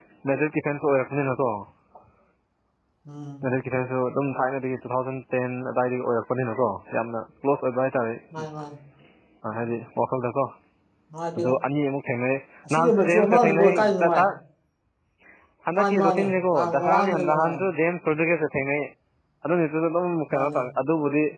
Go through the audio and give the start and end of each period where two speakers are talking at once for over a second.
12.7-14.2, 15.8-17.7

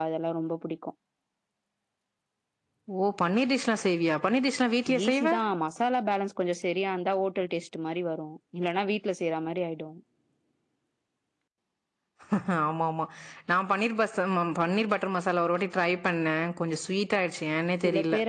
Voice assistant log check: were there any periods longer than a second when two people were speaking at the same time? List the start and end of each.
none

